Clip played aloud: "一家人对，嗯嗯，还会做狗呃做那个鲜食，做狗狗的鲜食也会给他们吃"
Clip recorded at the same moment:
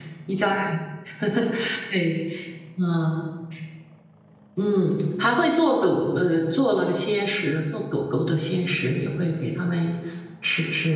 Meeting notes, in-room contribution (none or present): none